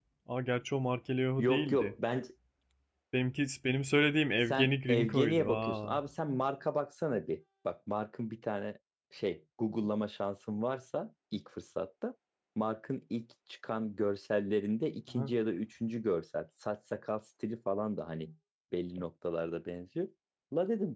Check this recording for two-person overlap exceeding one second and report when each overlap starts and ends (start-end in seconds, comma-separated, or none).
4.5-6.0